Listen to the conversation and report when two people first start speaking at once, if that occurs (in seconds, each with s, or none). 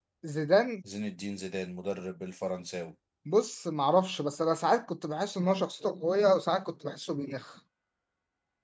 none